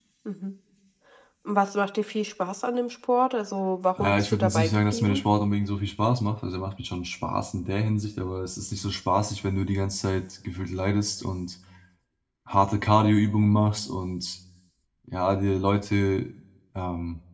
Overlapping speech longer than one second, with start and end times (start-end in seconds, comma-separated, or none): 4.0-5.2